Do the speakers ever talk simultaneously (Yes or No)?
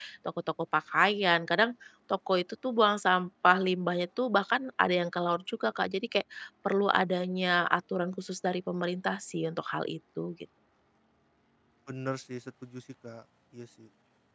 No